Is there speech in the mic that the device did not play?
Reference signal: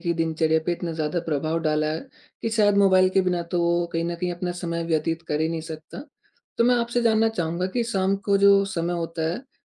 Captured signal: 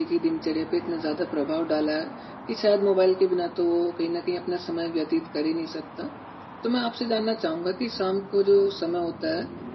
No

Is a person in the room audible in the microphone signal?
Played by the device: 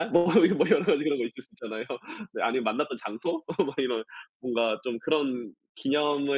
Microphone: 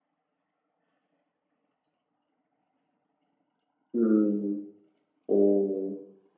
Yes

